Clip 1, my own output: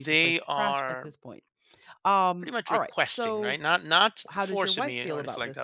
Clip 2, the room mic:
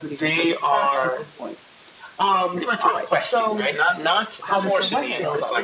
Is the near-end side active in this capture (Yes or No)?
Yes